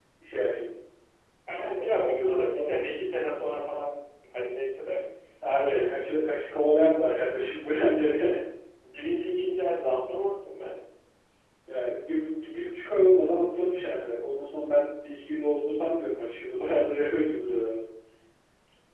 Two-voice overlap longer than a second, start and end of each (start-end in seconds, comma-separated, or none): 1.5-2.7